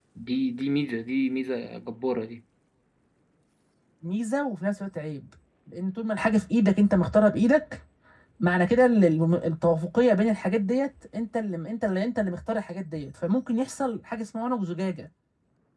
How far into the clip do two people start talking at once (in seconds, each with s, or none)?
none